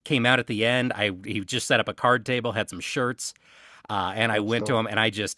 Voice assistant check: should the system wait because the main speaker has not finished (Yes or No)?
Yes